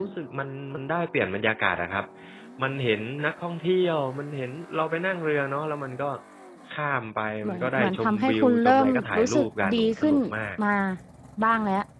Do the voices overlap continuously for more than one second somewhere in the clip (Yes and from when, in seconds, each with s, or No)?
Yes, from 7.4 s